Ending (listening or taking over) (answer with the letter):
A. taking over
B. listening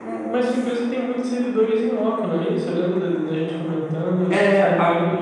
A